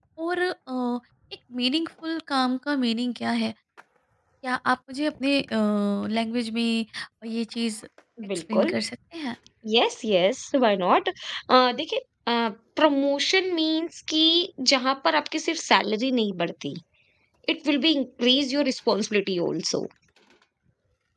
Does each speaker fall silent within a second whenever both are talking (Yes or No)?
Yes